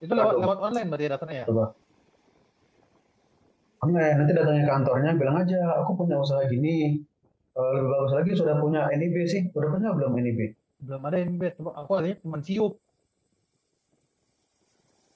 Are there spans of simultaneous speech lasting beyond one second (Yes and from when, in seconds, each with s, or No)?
No